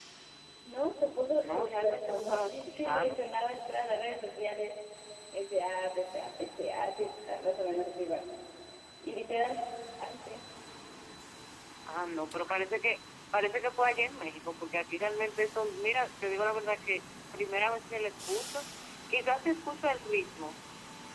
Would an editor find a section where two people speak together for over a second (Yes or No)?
Yes